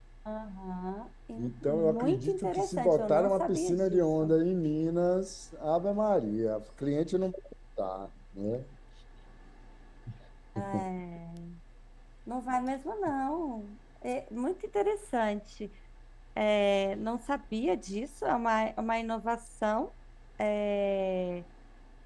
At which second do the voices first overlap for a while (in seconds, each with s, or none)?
1.4 s